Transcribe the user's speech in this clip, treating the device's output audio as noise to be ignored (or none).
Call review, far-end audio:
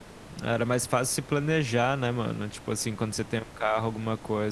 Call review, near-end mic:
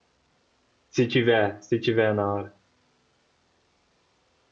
Se tiver, se tiver na hora.